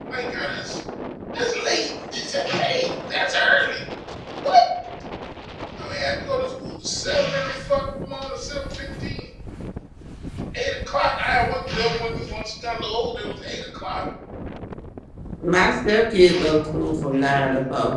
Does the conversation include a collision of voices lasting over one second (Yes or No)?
No